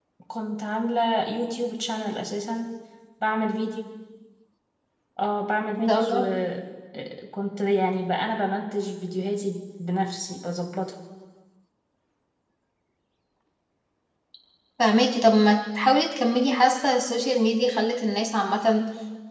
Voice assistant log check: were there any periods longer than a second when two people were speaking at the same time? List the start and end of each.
none

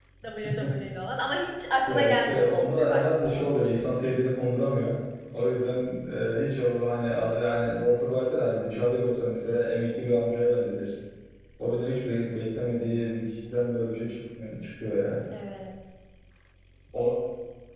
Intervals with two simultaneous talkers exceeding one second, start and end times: 1.9-3.4

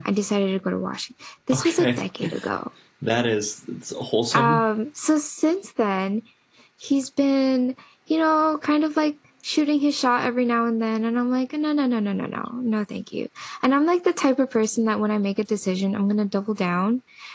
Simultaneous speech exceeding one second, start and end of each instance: none

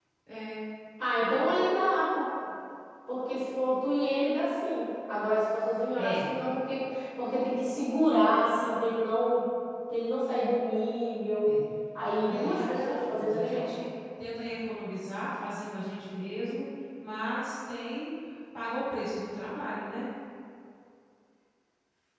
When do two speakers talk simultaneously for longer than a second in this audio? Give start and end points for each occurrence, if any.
12.3-13.7

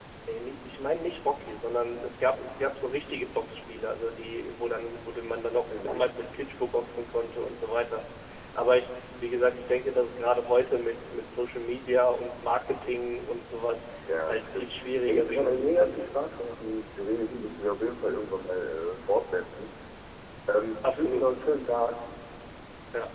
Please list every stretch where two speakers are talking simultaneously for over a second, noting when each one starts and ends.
14.3-16.2

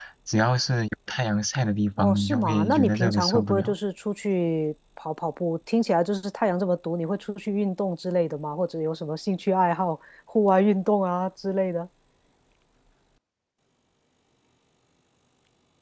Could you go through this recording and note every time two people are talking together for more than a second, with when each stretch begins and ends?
2.0-3.7

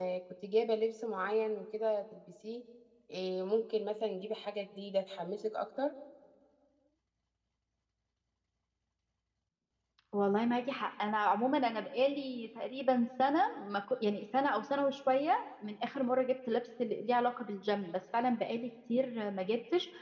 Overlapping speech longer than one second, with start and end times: none

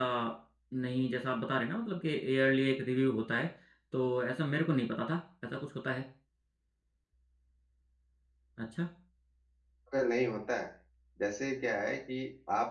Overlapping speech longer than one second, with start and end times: none

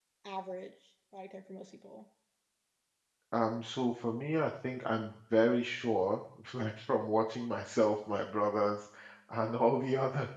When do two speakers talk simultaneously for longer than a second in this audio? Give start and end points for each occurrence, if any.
none

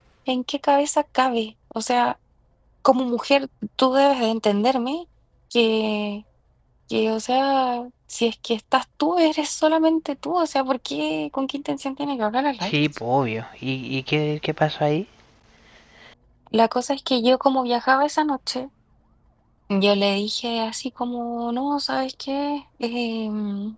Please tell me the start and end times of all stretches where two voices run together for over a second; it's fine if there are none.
none

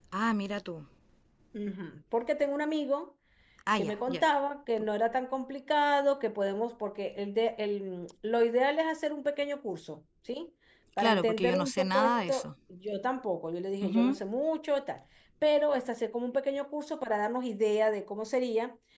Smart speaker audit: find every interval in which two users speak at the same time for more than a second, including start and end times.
11.0-12.5

